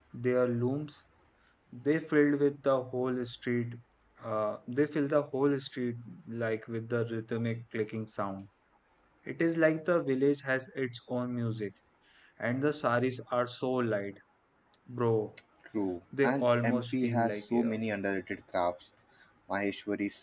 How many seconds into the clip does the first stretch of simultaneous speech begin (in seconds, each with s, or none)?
16.2 s